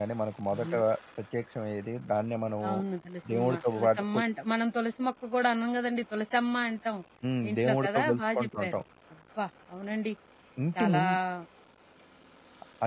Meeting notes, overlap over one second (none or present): present